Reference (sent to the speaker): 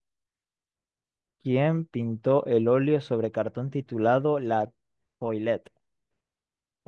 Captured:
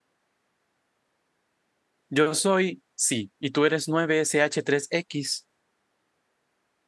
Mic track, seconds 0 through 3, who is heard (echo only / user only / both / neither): user only